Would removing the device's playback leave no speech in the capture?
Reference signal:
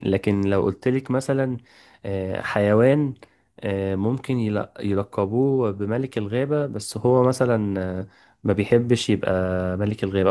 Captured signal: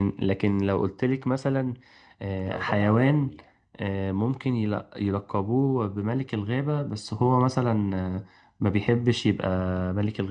No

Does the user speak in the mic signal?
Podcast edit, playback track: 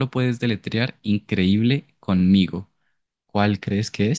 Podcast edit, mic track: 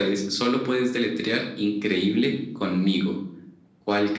No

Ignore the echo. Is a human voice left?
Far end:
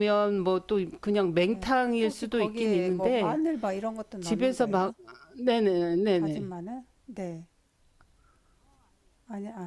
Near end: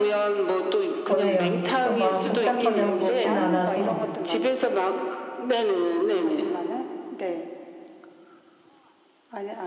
Yes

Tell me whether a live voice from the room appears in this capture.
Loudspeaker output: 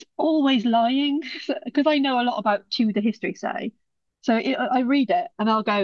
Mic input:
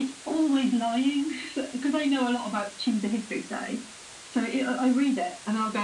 No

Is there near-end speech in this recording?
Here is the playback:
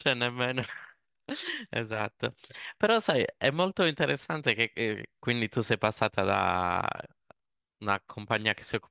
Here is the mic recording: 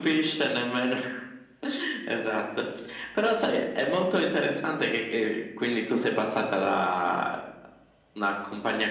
No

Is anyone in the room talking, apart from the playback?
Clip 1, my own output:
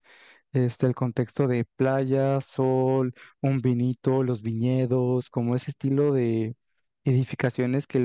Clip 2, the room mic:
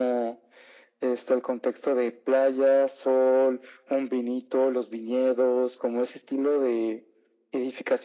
No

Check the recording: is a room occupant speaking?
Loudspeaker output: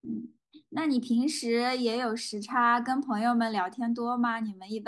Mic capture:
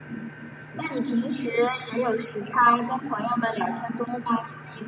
No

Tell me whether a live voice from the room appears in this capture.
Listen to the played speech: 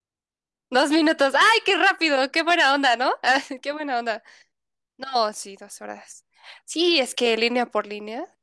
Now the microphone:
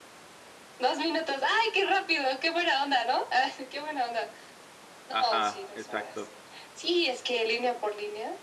Yes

